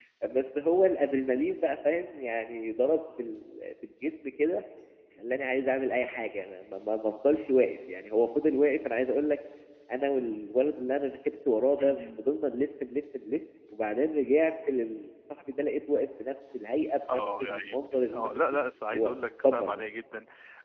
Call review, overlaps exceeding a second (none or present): present